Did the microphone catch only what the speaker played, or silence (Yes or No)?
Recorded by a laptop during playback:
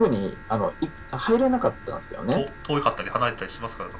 No